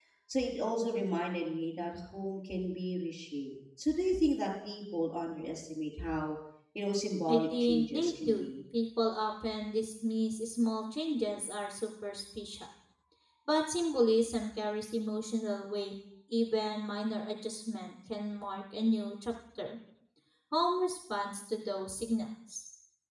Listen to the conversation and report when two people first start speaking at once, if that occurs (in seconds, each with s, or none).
7.3 s